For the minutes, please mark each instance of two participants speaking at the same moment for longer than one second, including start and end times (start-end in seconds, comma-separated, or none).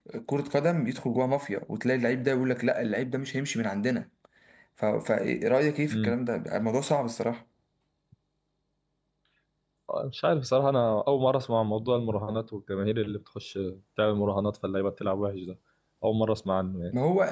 none